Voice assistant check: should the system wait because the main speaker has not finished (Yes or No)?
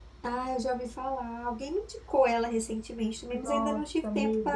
No